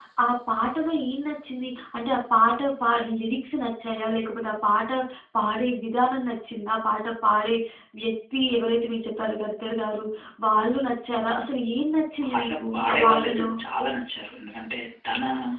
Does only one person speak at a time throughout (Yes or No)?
No